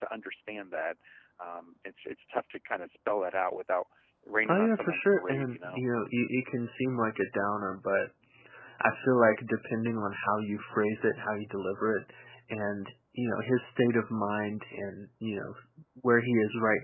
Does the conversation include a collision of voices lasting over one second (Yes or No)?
Yes